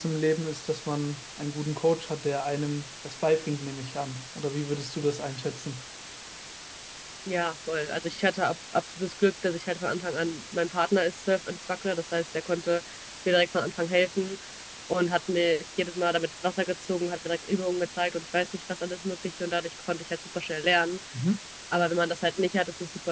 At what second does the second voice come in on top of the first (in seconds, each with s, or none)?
none